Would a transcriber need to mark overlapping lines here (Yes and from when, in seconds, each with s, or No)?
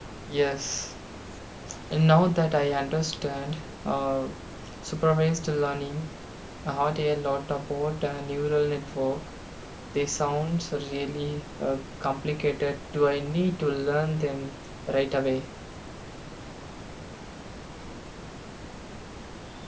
No